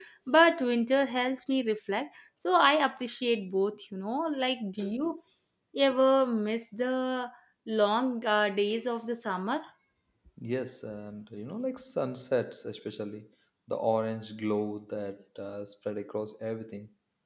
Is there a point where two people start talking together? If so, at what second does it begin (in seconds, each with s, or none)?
none